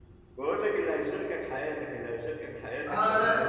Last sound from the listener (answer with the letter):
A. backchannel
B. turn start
B